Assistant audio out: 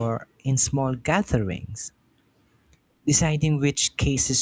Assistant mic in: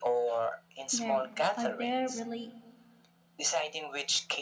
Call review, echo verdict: present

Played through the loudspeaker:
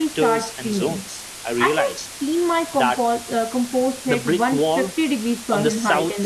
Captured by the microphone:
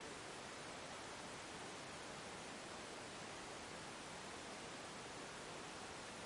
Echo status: none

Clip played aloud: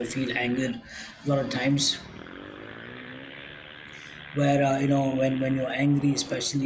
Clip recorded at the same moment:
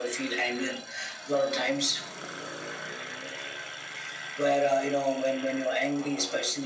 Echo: present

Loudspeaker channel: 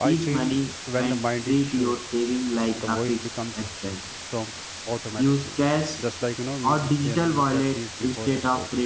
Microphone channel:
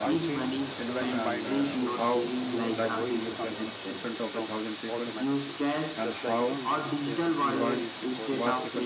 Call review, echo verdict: present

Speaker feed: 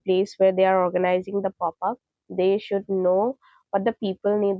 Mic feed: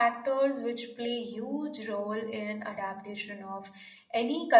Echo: none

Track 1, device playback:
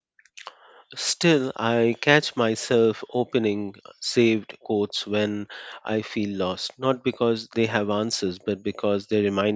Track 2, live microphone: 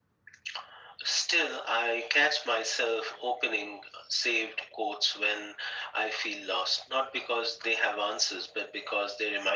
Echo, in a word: present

